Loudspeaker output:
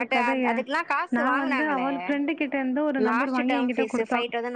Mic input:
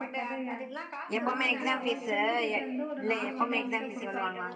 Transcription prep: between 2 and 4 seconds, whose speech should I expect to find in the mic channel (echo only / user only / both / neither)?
both